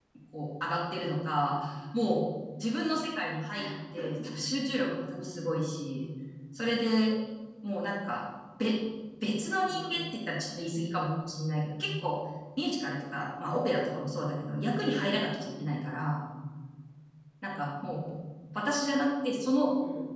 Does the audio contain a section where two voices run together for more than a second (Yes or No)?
No